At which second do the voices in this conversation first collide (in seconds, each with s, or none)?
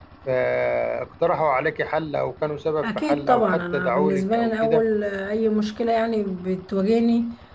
2.8 s